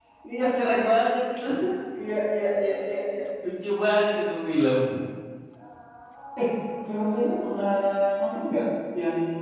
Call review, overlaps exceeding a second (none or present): none